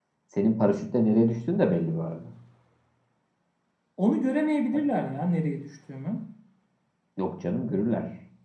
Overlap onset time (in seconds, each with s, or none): none